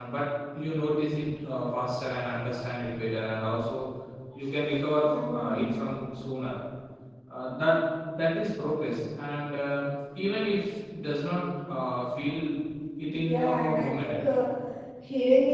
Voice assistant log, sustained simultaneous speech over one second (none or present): present